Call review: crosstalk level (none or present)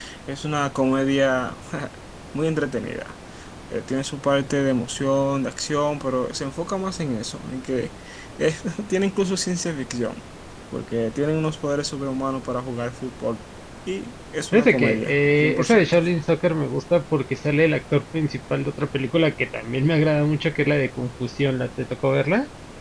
present